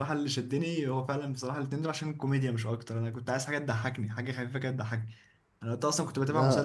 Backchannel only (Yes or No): Yes